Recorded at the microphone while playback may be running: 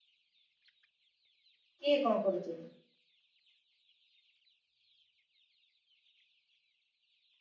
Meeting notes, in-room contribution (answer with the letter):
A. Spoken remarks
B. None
A